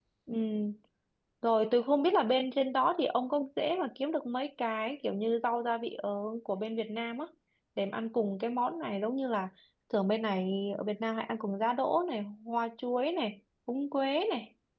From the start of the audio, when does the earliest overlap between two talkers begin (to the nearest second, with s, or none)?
none